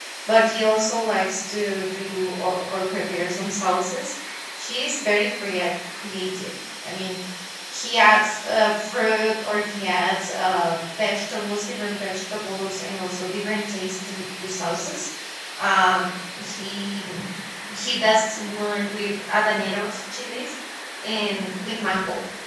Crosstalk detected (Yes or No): No